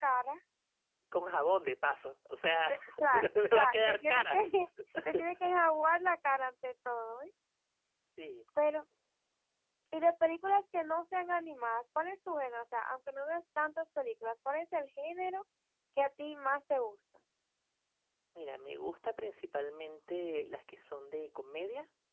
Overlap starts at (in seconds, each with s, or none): 2.7 s